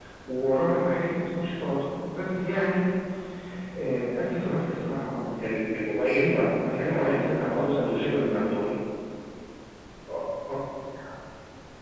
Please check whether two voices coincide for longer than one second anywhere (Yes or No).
Yes